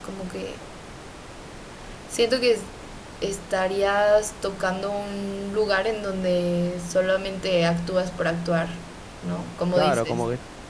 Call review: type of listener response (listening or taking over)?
taking over